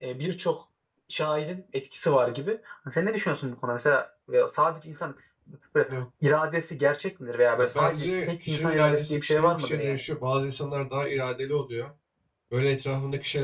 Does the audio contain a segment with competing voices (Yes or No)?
Yes